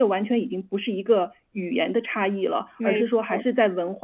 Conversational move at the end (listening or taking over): listening